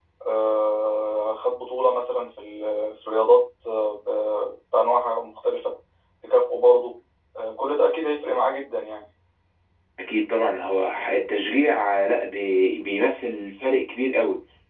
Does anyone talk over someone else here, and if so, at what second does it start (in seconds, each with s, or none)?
none